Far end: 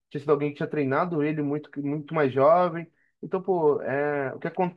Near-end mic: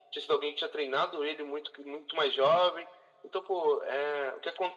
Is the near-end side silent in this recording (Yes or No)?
Yes